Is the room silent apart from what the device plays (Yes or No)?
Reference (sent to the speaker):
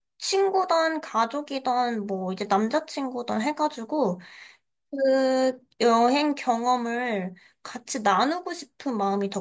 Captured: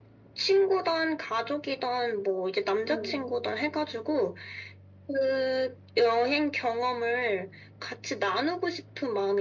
No